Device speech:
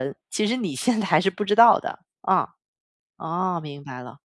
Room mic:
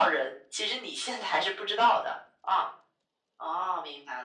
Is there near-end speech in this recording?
No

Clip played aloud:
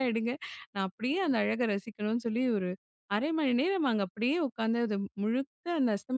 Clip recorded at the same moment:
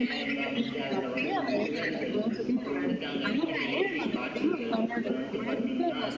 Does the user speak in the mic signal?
Yes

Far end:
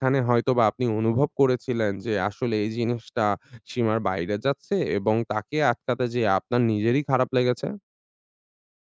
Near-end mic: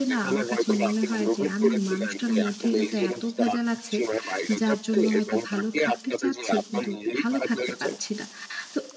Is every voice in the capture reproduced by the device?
No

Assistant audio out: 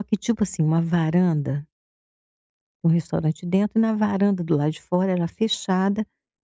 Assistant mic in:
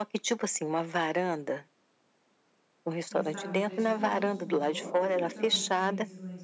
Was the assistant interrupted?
Yes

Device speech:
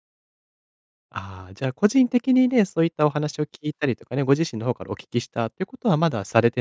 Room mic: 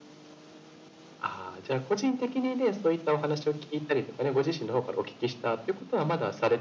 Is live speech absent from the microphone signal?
Yes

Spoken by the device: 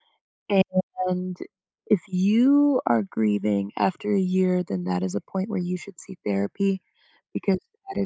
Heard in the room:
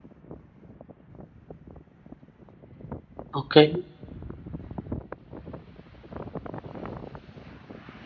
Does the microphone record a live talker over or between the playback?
Yes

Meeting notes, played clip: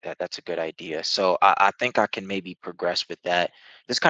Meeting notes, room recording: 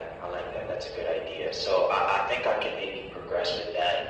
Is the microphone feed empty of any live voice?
Yes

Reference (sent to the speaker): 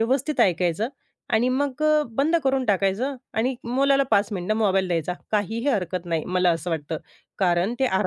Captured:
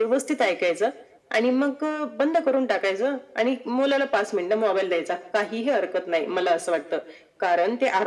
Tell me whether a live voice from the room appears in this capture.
No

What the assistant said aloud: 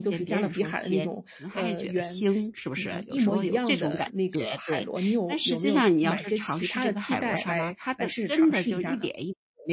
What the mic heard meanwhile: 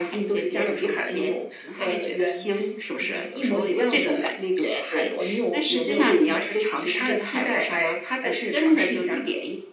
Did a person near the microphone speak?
No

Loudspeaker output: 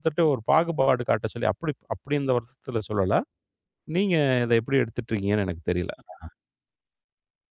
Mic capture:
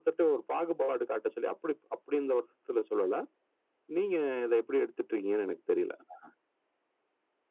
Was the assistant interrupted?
No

